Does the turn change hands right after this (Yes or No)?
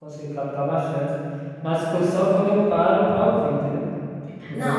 No